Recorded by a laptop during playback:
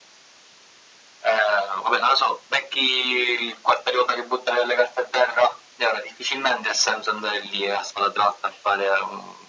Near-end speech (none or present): none